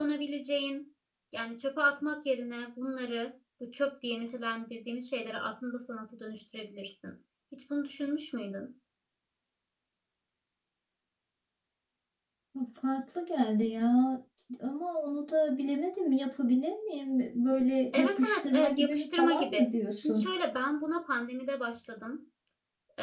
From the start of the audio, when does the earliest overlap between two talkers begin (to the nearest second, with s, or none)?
18 s